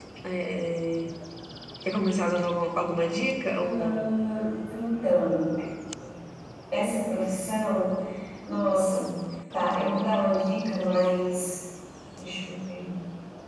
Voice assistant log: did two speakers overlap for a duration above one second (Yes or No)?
No